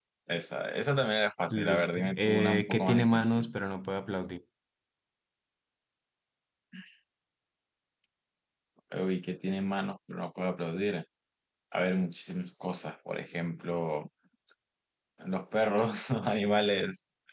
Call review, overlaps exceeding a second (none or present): present